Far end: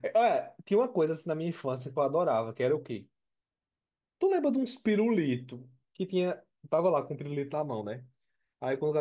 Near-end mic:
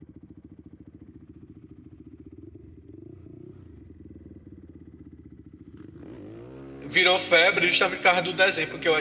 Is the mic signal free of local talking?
No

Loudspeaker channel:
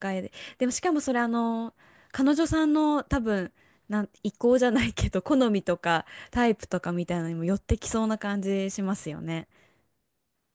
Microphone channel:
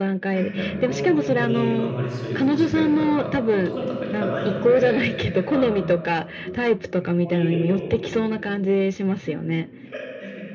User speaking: Yes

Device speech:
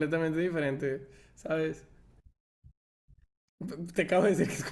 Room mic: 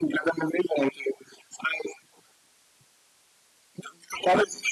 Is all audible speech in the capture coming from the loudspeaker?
Yes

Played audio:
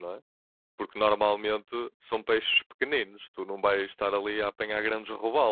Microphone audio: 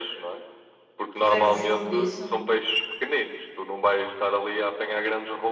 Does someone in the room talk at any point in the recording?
Yes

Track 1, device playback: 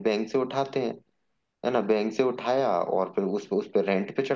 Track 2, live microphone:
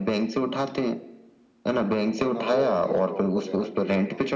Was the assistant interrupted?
Yes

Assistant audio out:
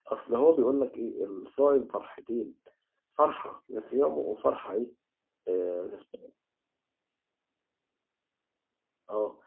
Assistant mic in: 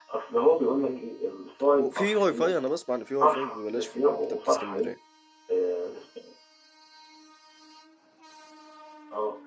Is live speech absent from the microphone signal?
No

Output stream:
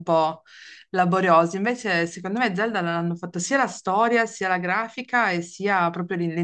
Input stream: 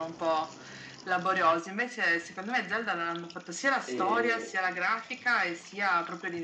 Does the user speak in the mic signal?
Yes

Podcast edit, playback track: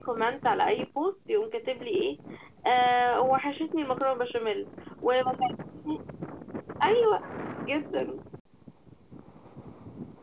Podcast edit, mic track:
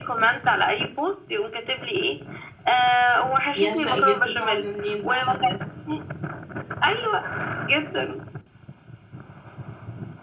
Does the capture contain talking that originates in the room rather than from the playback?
Yes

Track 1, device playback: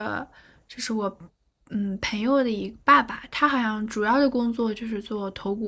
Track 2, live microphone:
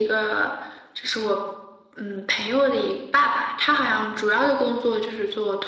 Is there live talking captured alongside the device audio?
No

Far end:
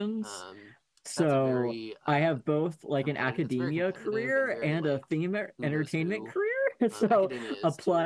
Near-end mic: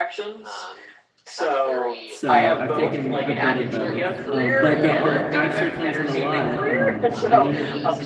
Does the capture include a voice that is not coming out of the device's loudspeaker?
Yes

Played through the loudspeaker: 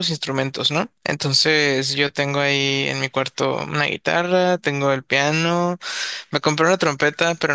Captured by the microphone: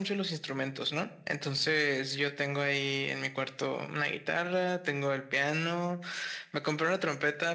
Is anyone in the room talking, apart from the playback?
No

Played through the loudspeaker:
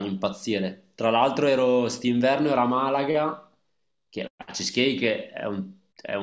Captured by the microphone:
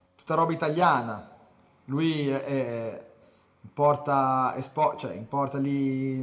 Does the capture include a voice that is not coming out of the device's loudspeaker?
Yes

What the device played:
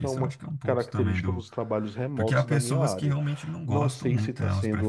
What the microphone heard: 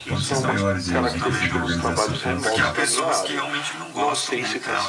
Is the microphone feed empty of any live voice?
No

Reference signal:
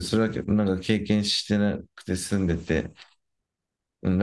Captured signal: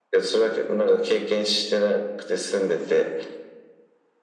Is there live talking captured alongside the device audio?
No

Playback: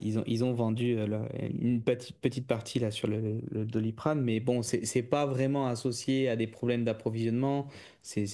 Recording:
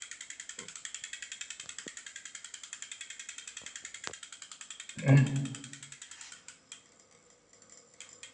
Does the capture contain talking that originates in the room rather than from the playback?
Yes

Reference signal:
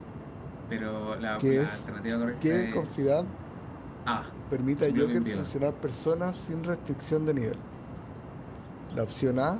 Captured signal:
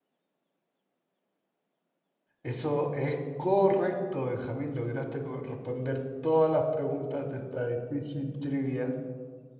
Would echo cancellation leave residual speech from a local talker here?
Yes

